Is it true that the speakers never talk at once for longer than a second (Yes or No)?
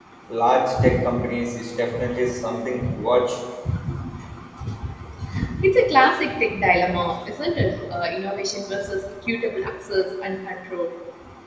Yes